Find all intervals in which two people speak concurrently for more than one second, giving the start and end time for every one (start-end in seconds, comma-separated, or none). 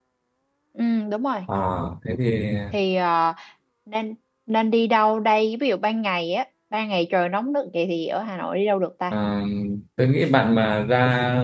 none